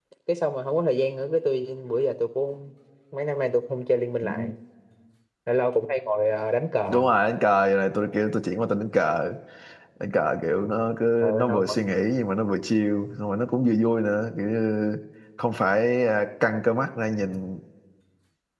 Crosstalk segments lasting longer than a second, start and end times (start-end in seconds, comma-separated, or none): none